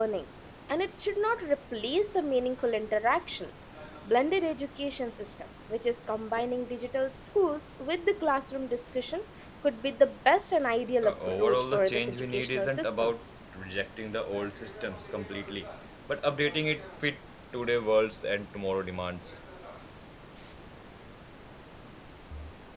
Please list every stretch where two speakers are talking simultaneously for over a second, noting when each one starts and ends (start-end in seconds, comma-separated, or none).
11.0-13.1